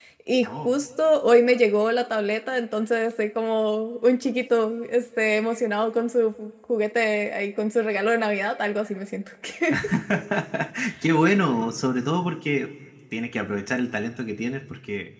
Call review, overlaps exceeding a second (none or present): none